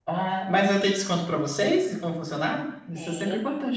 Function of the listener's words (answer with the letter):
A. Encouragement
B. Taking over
B